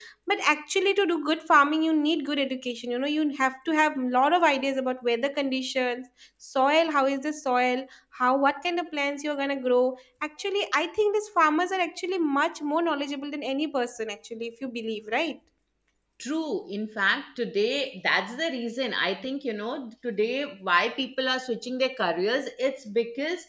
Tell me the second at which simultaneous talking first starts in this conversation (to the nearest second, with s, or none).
none